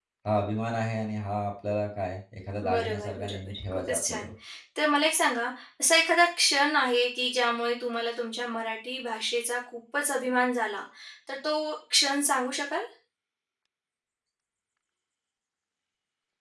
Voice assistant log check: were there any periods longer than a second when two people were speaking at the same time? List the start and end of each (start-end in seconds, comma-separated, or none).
2.7-4.3